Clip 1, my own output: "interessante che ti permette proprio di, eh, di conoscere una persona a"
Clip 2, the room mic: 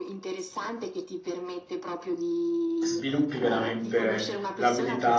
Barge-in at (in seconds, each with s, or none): 2.8 s